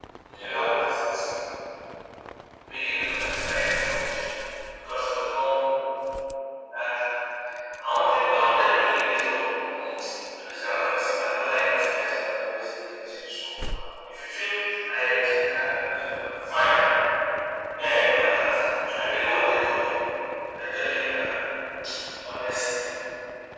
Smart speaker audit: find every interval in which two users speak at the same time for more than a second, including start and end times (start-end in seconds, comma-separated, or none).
8.3-9.8